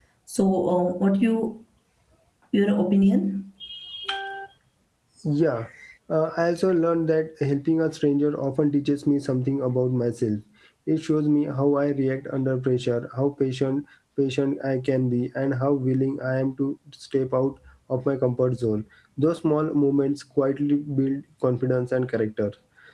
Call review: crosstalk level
none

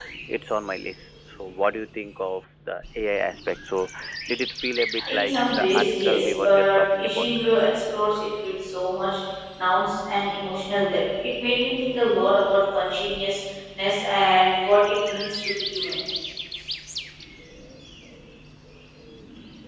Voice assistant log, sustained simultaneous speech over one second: present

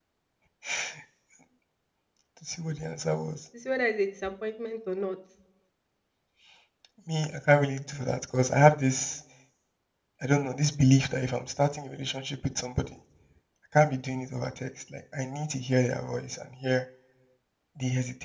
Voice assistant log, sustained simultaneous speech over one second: none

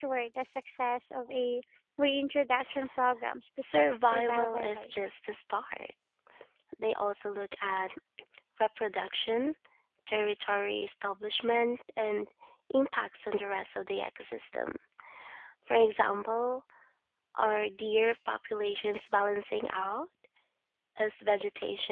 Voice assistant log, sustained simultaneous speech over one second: present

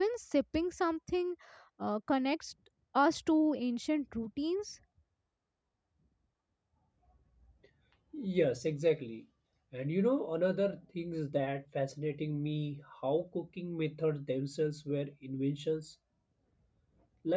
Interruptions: none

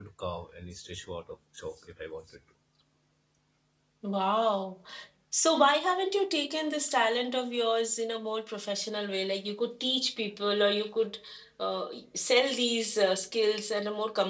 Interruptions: none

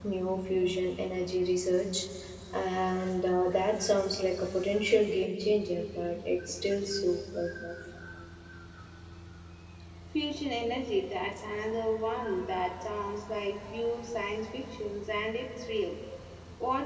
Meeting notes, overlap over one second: none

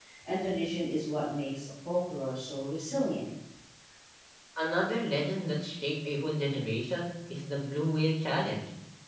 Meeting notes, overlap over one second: none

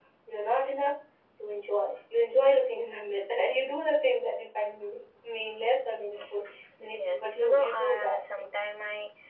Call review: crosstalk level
present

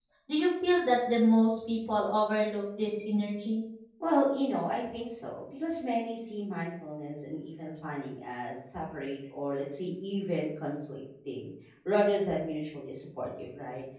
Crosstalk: none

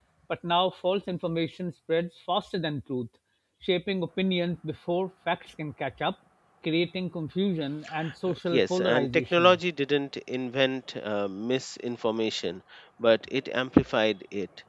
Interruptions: present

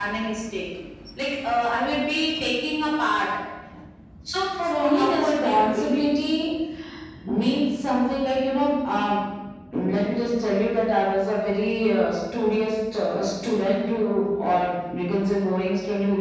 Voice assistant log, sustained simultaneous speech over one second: present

